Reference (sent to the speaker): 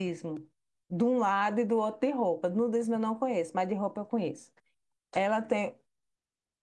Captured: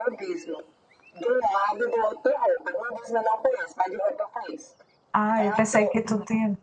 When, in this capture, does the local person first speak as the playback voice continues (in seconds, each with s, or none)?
5.1 s